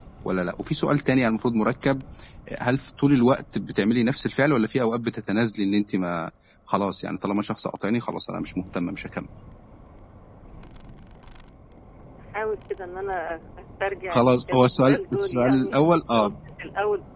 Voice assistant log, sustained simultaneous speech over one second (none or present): present